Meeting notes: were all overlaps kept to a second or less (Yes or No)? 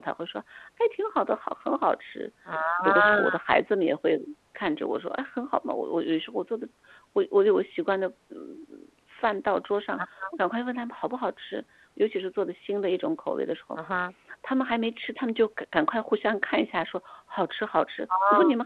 Yes